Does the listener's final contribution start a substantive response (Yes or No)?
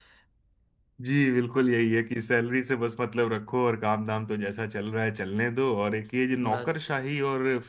No